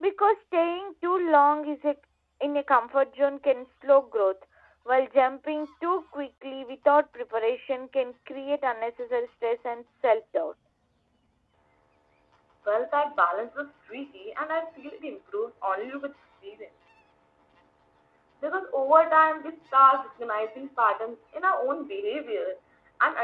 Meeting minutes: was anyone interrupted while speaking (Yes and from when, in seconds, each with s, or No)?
No